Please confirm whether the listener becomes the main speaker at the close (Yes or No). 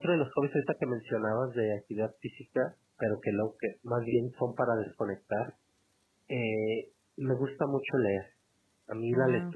No